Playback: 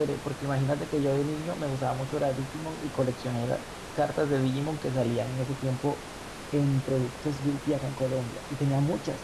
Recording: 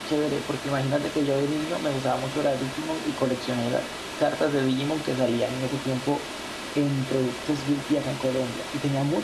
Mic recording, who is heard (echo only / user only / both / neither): echo only